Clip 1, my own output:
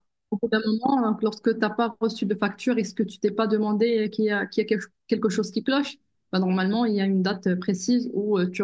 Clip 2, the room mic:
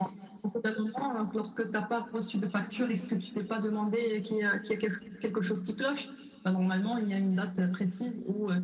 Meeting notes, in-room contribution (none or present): none